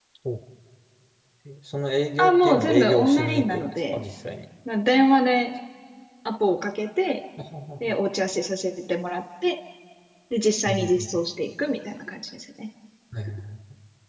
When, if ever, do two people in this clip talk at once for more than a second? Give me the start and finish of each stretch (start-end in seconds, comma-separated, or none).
2.2-4.0